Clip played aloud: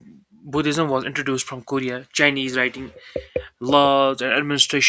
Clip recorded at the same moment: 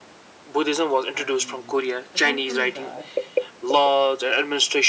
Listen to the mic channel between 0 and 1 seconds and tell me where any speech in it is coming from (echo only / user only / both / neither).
echo only